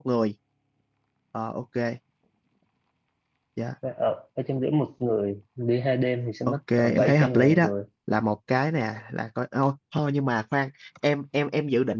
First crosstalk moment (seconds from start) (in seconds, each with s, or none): 6.5 s